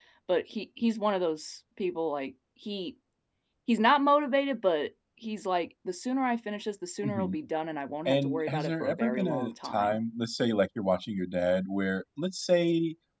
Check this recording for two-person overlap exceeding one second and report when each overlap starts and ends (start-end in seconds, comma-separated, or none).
8.1-10.0